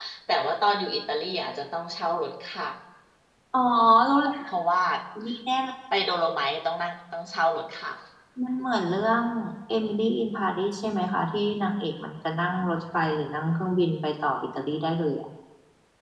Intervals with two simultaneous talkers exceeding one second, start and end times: none

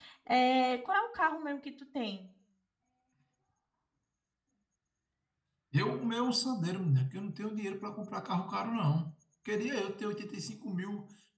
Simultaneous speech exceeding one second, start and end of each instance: none

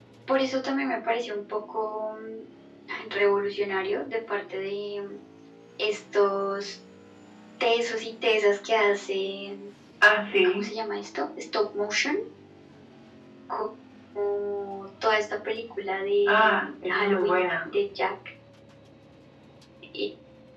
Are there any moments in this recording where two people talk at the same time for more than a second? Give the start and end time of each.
16.3-17.7

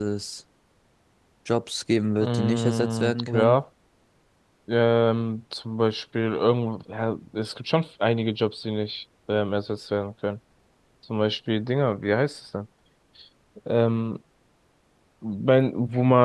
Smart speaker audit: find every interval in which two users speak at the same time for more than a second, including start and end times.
2.2-3.6

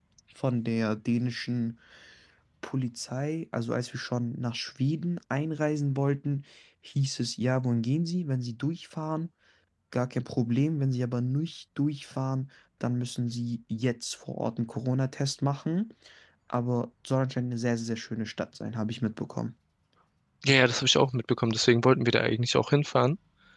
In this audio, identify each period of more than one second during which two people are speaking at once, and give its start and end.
none

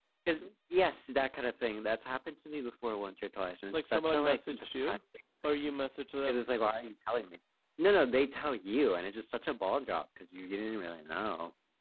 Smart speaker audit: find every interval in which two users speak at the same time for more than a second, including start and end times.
3.7-5.0

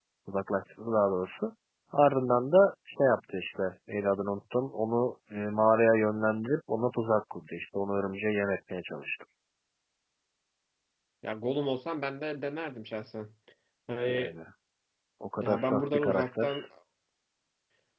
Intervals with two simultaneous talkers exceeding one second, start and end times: 15.4-16.6

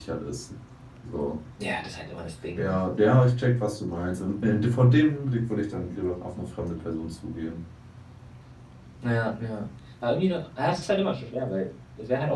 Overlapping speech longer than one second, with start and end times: none

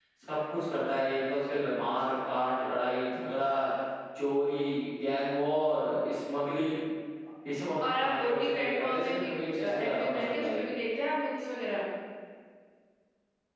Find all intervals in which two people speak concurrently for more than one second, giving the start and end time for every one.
7.8-10.6

